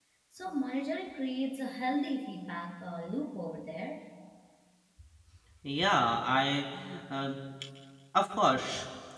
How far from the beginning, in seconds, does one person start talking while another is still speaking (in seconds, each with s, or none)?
none